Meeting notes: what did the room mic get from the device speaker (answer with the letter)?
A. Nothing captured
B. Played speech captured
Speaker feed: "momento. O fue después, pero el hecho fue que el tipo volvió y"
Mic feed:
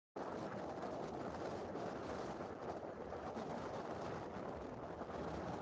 A